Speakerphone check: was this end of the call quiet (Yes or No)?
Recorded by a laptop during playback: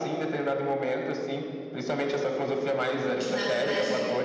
No